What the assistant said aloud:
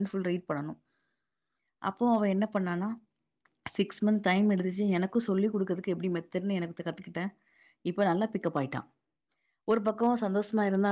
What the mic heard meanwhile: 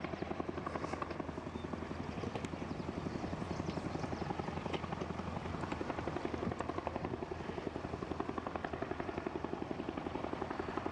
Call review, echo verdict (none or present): none